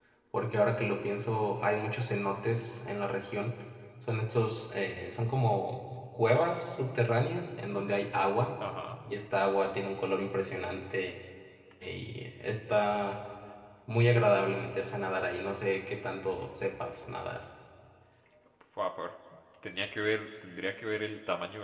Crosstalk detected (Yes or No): No